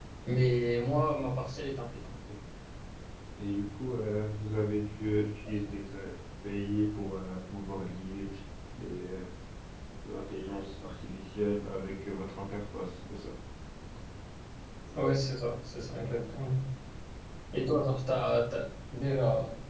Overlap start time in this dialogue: none

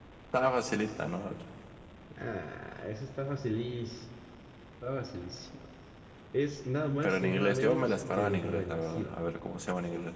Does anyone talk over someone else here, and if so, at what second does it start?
7.0 s

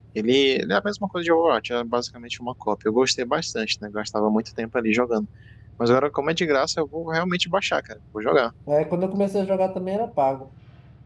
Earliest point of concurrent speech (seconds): none

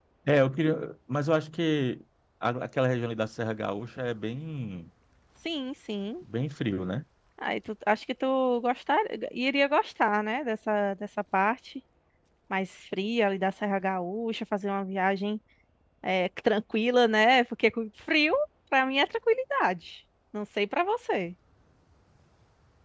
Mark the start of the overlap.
none

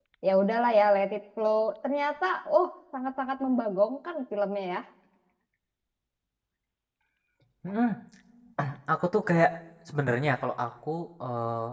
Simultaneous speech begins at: none

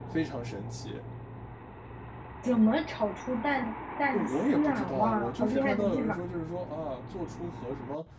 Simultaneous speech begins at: 4.1 s

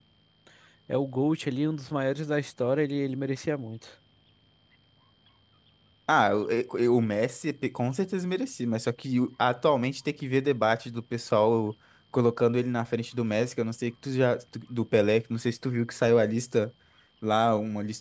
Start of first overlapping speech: none

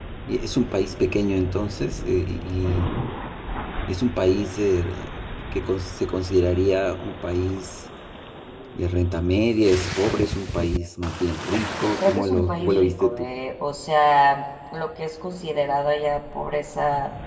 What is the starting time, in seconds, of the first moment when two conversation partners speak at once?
12.0 s

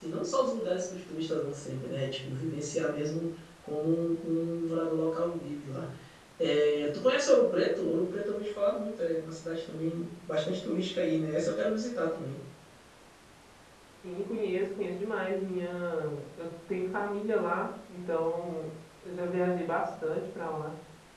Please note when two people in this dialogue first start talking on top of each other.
none

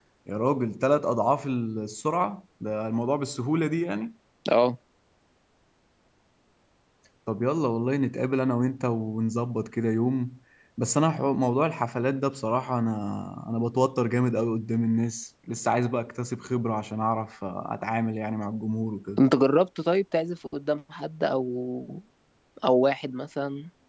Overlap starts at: none

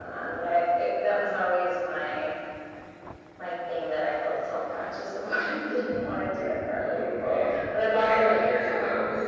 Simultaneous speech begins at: 6.8 s

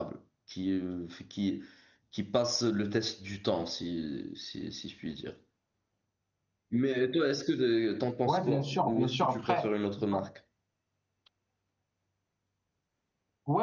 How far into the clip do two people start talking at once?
8.2 s

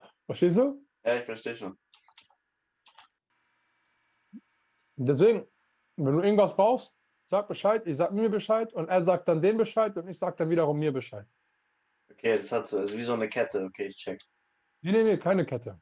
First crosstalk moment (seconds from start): none

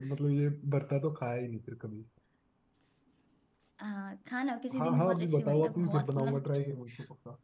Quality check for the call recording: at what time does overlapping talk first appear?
4.7 s

